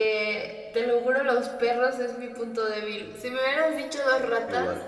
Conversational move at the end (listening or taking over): listening